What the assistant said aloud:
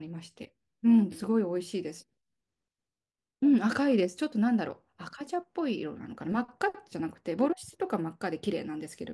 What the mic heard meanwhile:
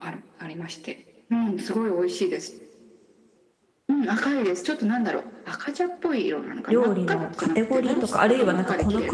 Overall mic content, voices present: both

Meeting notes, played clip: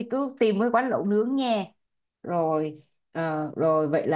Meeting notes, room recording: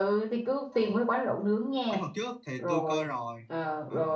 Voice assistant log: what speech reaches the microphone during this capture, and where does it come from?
both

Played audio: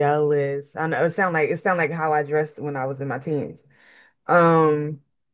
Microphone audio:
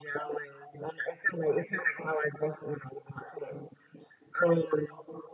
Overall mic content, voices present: echo only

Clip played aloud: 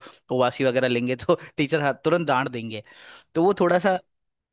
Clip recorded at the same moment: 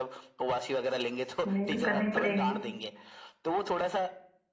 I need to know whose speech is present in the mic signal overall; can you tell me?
both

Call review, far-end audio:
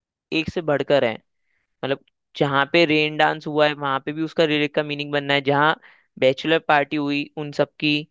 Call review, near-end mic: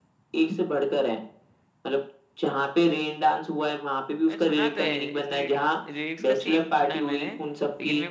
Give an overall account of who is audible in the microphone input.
both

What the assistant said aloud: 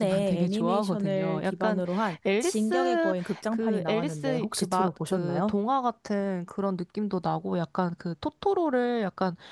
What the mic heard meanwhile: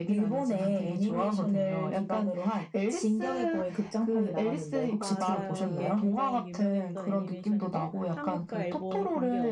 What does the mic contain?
both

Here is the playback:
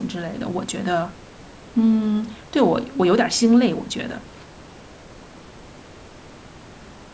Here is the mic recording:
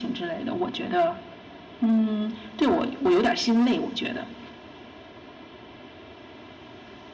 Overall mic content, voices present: echo only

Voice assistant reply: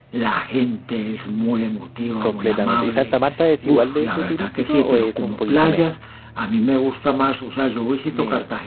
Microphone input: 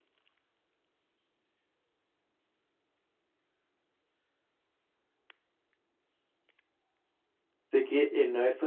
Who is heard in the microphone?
user only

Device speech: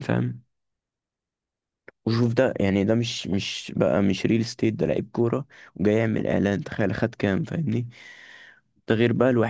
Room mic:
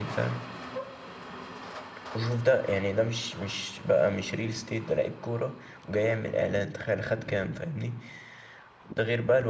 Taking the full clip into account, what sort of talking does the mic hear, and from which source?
echo only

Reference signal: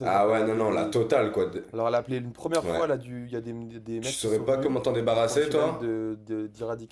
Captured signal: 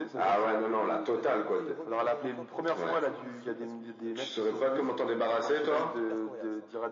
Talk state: both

